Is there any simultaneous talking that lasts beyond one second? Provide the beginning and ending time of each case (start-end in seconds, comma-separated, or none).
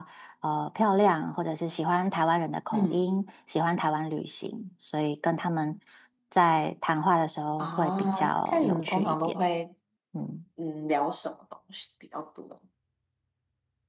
7.6-9.4